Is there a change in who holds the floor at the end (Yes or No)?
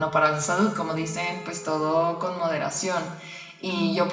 No